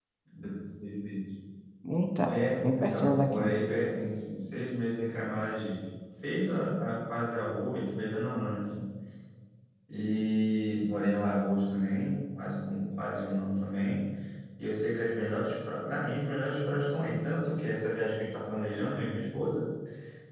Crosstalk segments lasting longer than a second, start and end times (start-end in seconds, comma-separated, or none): 2.3-3.5